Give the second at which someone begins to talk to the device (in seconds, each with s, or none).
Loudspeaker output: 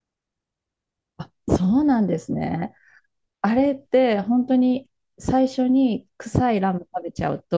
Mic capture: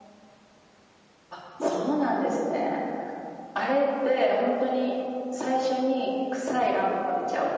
none